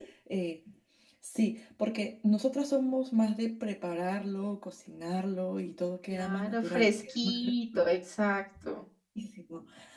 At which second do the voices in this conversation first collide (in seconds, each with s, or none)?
6.1 s